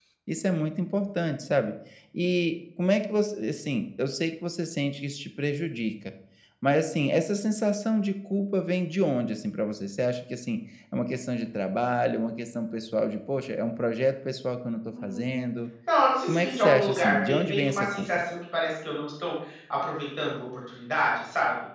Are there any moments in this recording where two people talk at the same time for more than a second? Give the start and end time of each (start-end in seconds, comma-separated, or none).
16.2-18.2